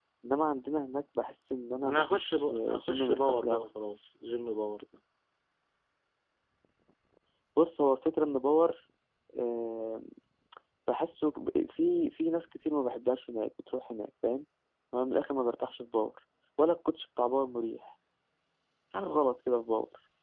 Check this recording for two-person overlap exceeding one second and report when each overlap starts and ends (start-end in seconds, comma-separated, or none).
1.8-3.7